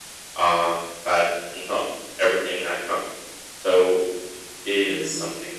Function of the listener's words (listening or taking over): taking over